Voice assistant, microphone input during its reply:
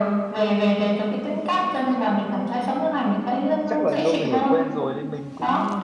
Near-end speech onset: 4 s

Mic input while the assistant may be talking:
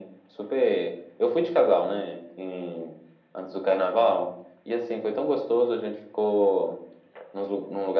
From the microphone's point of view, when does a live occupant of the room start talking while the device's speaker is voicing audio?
none

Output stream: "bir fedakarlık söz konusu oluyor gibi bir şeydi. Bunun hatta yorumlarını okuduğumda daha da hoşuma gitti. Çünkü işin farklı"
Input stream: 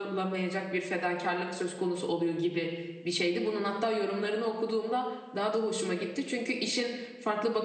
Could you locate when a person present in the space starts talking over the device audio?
none

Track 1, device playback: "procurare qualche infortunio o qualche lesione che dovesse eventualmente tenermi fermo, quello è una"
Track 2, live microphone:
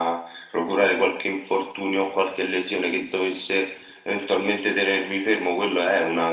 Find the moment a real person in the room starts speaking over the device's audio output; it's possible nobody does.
none

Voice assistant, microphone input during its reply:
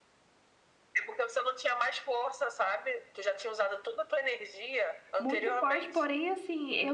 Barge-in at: 5 s

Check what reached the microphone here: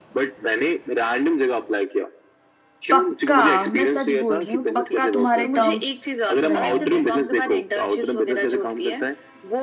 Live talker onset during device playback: 3 s

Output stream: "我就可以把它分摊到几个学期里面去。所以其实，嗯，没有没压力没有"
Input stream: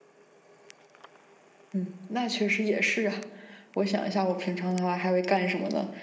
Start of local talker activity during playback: 2 s

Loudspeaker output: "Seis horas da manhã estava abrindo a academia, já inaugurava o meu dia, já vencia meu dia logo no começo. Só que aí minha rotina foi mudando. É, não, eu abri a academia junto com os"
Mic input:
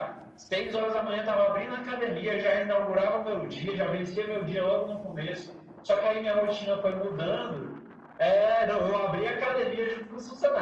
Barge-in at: none

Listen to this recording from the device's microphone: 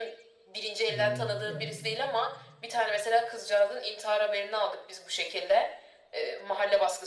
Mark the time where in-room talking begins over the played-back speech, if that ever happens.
1 s

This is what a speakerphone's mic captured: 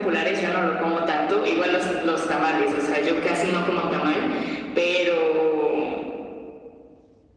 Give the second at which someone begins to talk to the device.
none

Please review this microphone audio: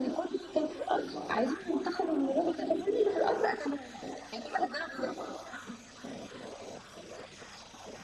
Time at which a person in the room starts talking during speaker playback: none

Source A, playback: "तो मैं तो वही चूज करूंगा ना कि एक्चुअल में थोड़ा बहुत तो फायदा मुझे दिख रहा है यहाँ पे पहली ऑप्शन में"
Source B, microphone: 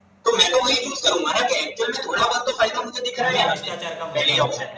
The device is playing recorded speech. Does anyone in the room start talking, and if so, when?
3 s

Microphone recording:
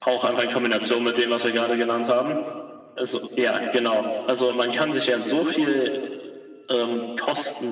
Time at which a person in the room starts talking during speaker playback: none

